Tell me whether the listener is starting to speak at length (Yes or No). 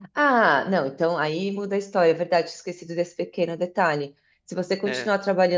No